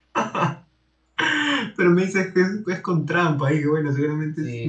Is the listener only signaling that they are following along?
No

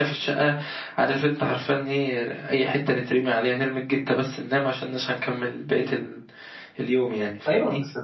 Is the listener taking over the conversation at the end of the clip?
Yes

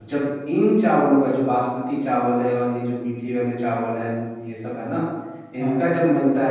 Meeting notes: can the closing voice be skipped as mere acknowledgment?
Yes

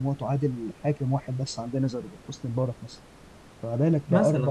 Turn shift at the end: No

